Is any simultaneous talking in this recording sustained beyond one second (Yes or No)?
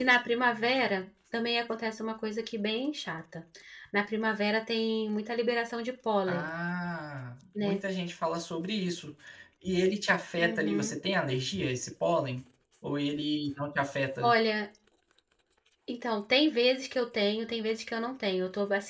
No